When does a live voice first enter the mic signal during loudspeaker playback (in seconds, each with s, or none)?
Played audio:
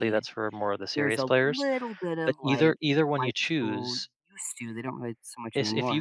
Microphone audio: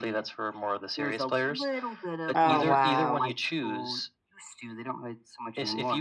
2.3 s